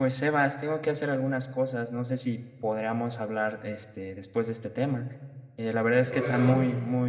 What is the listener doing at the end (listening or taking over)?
listening